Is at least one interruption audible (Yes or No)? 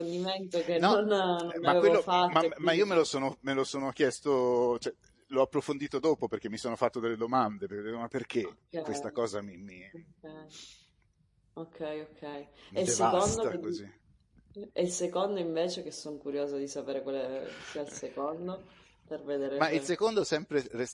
Yes